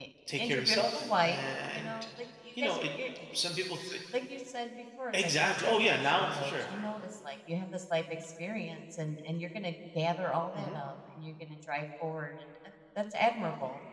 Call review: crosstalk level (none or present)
present